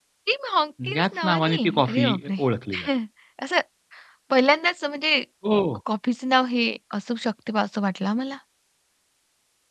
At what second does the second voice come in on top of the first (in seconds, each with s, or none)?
0.9 s